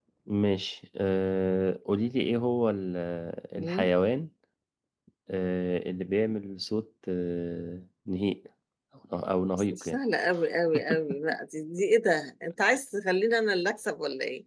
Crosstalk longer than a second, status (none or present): none